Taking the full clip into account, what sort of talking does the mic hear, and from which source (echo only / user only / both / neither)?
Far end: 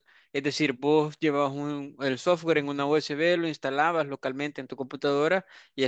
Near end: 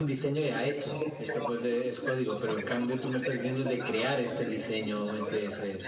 both